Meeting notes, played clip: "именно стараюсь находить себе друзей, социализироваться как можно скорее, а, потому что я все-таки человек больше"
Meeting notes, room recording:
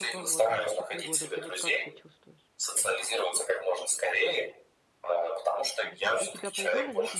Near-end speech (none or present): present